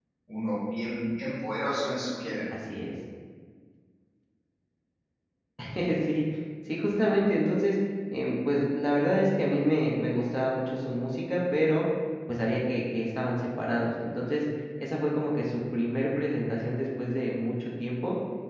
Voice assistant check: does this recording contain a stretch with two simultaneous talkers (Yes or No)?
No